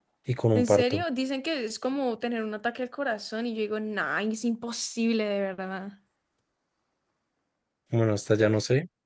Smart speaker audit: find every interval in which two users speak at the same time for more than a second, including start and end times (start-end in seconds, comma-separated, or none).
none